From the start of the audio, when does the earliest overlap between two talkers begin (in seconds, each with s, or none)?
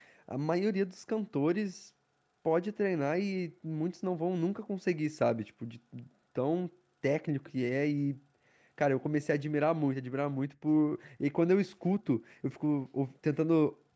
none